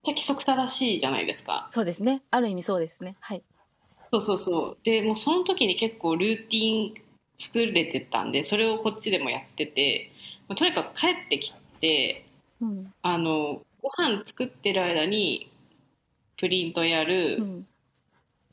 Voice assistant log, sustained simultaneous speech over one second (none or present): none